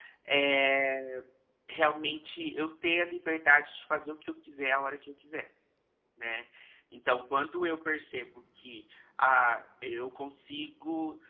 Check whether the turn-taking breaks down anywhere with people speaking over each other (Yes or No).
No